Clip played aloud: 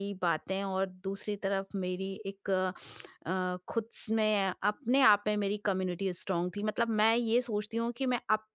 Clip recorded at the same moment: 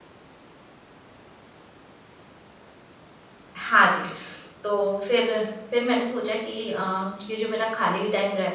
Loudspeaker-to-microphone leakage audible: No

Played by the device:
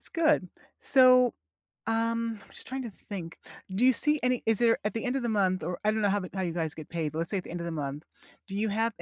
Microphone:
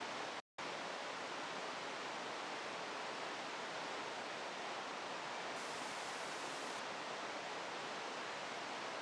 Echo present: No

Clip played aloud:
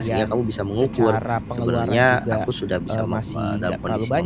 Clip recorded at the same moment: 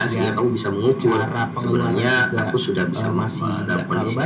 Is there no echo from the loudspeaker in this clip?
No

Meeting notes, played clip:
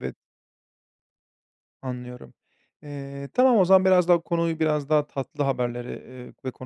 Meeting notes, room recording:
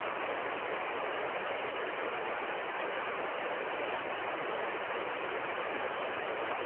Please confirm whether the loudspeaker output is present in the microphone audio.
No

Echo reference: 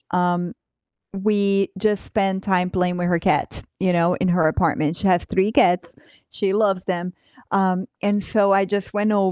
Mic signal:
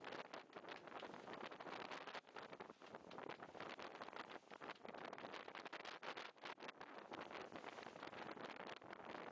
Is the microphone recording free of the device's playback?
Yes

